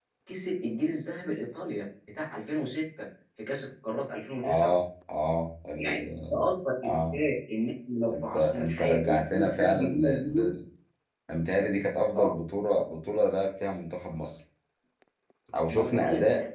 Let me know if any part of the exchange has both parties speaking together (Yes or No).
Yes